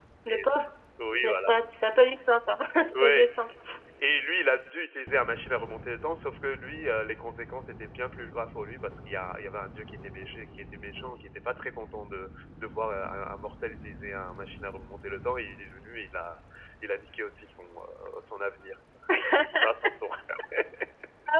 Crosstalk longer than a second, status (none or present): none